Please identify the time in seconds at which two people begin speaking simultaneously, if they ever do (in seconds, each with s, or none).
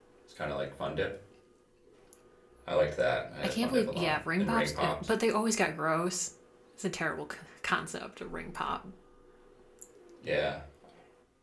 3.4 s